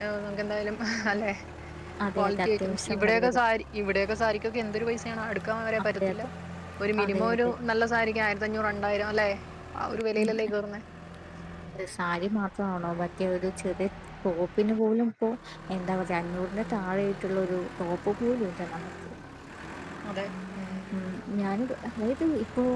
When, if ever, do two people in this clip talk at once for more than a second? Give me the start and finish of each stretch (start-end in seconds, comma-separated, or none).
2.2-3.4